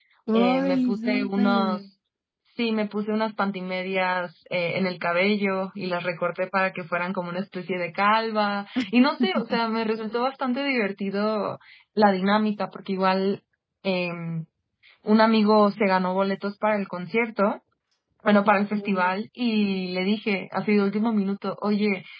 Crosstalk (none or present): present